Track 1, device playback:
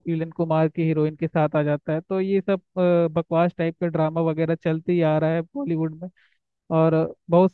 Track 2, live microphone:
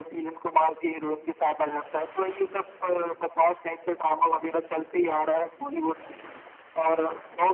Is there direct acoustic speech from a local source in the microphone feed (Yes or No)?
No